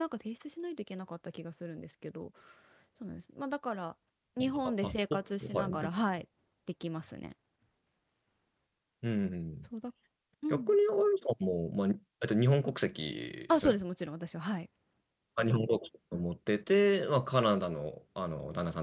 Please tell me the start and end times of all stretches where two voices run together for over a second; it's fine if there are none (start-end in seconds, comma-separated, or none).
4.4-5.9